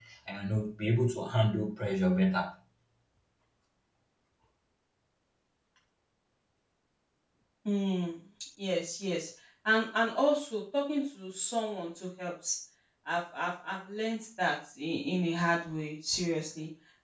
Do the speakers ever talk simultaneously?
No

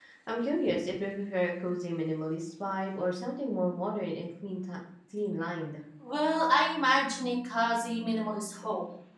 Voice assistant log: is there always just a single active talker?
Yes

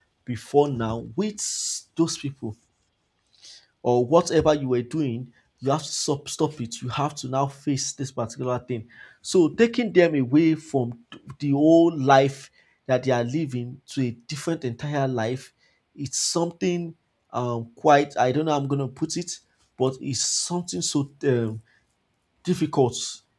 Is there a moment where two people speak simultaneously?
No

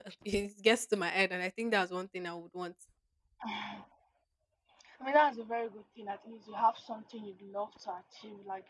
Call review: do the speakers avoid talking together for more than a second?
Yes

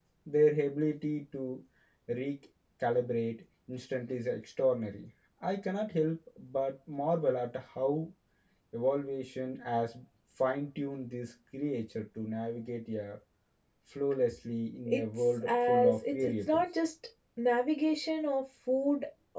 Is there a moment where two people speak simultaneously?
Yes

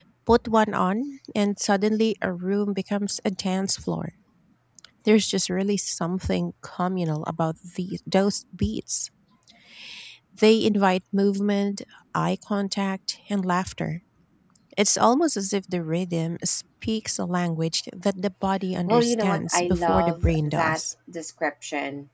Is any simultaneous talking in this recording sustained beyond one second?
Yes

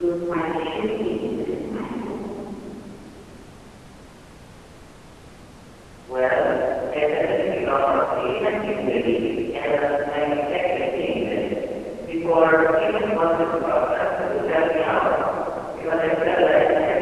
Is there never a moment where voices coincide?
Yes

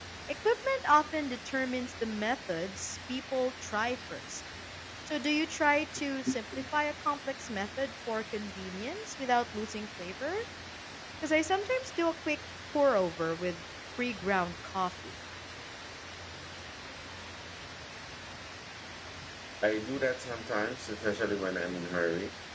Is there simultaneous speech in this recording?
No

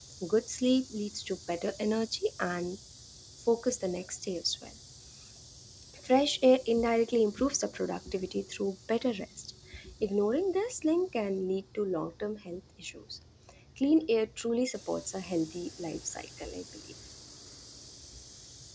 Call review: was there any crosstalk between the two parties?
No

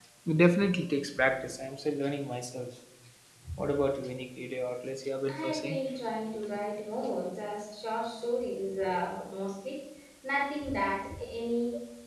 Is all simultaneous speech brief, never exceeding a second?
Yes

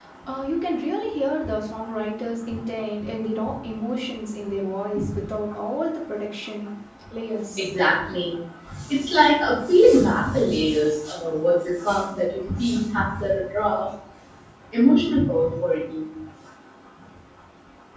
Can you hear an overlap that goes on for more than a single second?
No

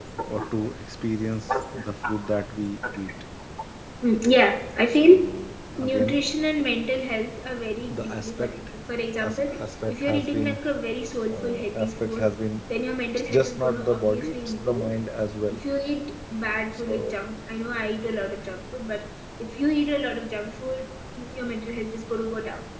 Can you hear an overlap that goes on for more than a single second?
Yes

